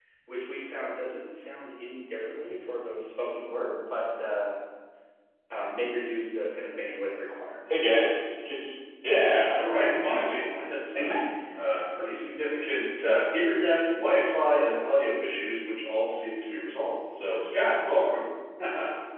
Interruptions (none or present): present